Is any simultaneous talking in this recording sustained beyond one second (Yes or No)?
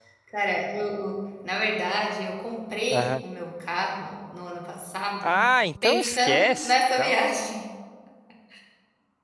Yes